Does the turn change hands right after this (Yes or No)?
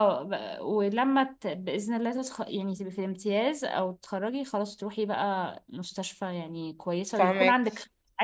No